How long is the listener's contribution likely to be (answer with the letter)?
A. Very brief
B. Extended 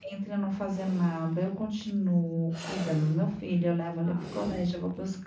A